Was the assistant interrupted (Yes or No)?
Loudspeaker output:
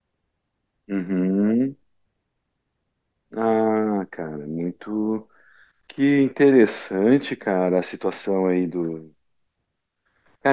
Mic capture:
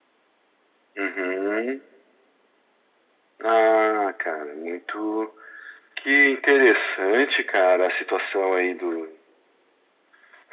No